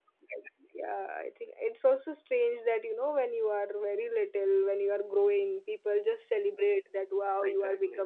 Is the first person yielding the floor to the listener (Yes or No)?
No